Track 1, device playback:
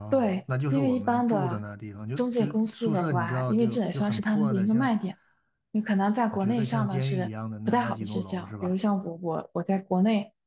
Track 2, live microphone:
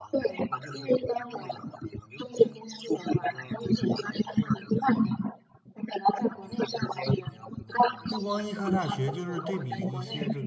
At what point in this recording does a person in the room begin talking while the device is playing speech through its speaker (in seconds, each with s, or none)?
8.1 s